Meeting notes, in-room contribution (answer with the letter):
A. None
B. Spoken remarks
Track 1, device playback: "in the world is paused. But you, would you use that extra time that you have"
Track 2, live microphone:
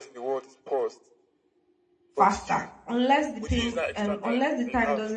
B